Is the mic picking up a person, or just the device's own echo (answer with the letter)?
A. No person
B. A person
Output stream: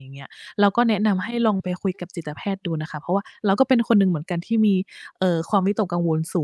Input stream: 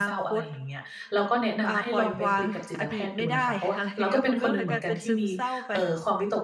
B